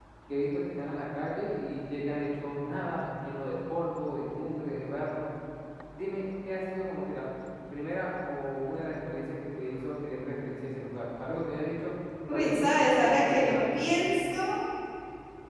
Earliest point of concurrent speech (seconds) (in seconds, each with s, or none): 12.3 s